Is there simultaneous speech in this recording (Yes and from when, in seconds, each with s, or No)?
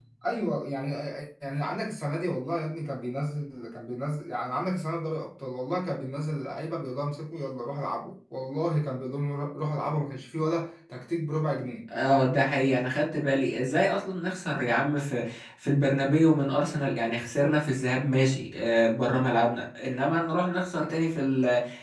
No